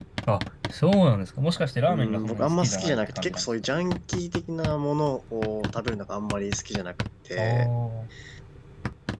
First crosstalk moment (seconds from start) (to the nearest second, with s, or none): 2 s